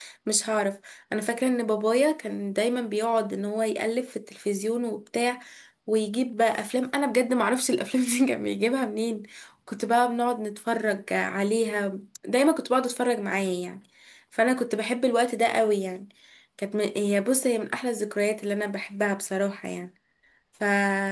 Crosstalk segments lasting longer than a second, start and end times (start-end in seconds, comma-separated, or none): none